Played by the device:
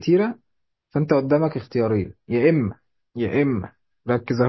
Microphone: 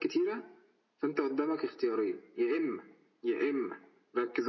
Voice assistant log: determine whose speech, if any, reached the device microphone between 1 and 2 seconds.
echo only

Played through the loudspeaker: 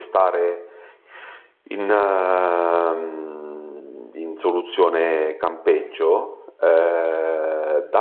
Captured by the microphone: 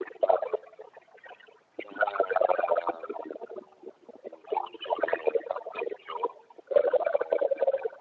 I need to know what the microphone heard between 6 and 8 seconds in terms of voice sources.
echo only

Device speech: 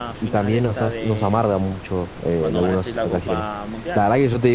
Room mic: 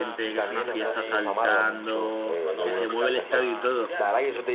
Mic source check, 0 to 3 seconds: both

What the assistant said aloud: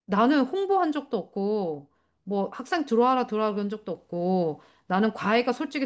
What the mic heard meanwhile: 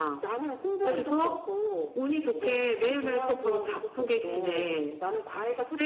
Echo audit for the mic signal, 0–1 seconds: both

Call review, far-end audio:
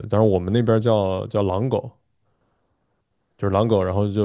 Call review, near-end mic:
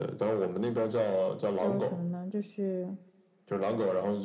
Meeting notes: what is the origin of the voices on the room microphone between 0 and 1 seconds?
echo only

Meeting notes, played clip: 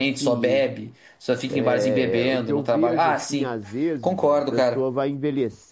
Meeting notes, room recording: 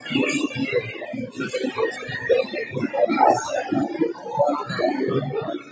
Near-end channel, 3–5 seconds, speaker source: echo only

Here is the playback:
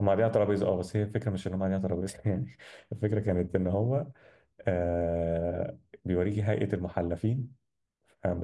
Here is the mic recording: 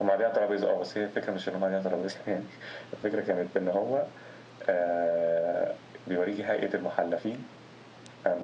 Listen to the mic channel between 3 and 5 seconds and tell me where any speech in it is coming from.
echo only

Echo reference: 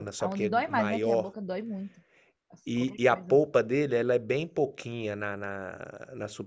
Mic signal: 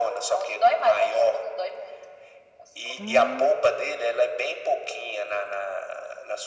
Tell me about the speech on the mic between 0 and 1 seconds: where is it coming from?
echo only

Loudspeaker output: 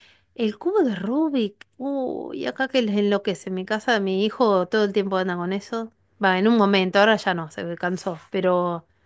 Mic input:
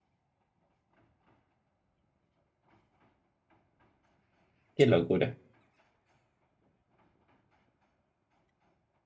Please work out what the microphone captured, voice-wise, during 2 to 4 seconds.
neither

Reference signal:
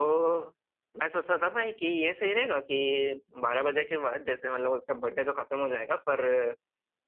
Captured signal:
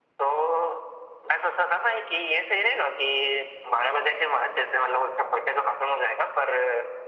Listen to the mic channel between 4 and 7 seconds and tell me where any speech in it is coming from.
echo only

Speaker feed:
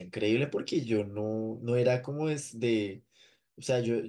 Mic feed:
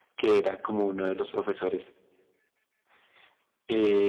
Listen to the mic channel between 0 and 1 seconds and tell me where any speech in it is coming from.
user only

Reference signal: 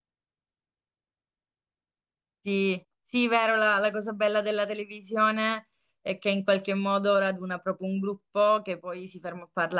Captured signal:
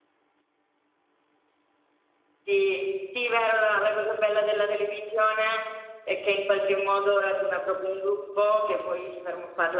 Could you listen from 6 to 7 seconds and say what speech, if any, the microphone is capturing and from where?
echo only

